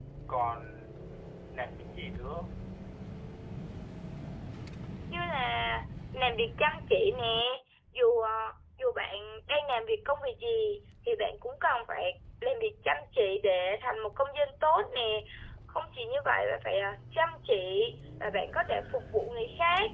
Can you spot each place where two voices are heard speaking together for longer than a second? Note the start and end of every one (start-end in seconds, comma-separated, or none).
none